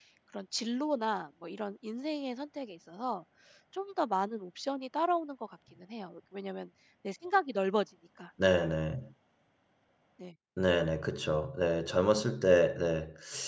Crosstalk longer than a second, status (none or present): none